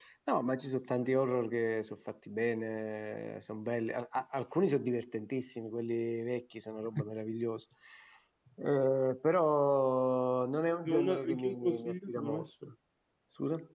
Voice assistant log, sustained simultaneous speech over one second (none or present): present